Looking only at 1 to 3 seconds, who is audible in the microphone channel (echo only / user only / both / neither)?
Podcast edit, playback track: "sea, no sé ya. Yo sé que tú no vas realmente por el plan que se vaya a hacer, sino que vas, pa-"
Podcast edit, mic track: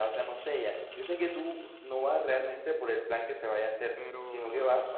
echo only